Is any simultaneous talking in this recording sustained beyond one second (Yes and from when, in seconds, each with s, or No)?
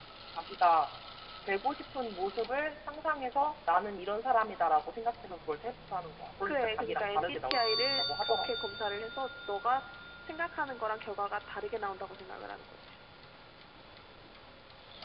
Yes, from 6.5 s